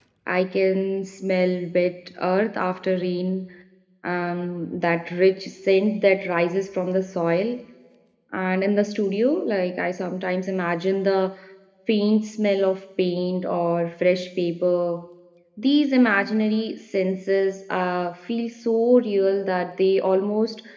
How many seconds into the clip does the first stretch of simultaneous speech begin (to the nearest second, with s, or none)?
none